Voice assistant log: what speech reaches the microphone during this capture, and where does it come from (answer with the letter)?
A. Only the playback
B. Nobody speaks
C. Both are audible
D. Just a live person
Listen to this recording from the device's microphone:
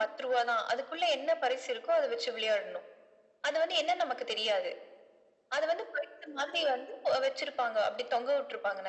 A